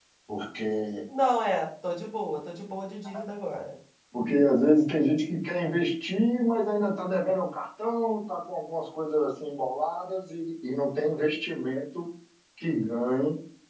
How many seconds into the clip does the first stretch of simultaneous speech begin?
none

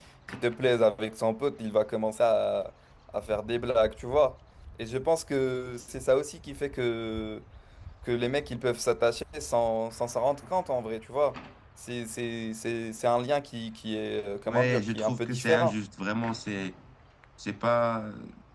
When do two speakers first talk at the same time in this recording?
14 s

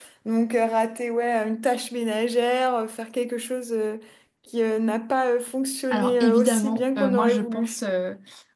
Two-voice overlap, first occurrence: 6 s

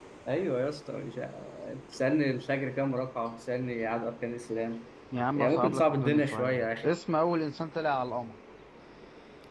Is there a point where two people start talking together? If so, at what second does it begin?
5 s

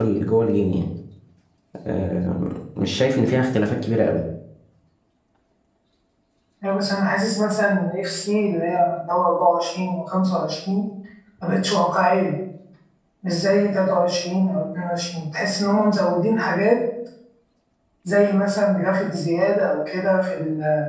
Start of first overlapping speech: none

